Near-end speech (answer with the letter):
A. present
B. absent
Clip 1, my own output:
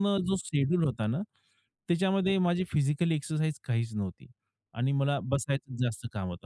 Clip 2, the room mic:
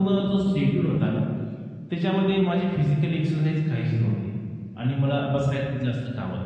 B